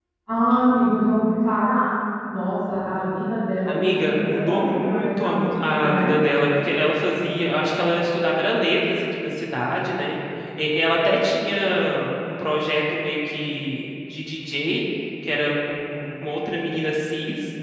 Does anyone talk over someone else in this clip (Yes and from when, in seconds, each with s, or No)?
Yes, from 3.6 s